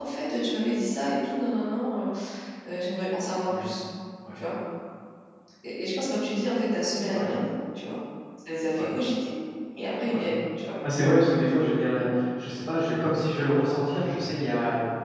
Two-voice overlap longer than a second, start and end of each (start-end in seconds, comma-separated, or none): none